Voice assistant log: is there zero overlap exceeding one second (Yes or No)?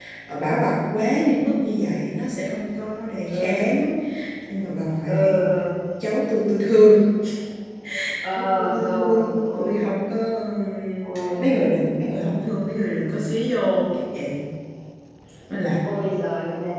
No